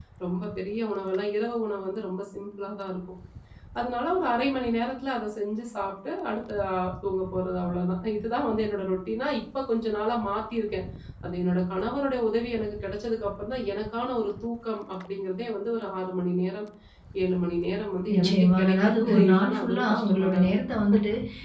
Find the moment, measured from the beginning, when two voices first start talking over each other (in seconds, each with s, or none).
18.1 s